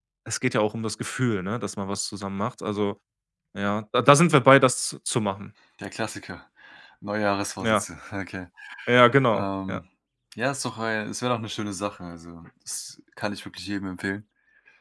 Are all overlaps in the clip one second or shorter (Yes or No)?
Yes